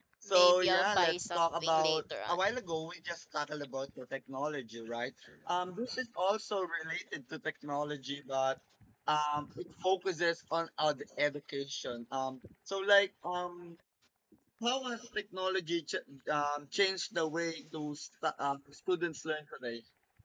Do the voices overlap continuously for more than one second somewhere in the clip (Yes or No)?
Yes